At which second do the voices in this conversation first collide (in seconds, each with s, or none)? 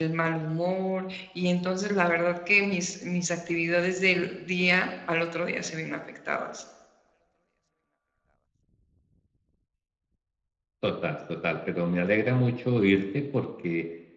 none